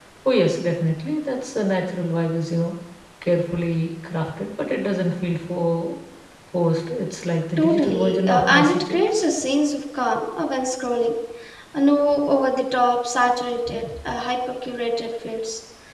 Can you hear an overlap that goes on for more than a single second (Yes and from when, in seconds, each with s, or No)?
Yes, from 7.6 s